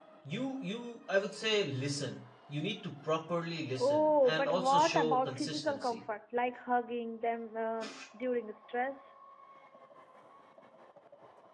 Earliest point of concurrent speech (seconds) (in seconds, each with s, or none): 3.8 s